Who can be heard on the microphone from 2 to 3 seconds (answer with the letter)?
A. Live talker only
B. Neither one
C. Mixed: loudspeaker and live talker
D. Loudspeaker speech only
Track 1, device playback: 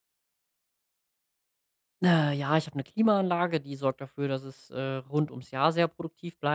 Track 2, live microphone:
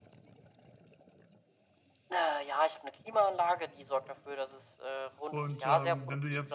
D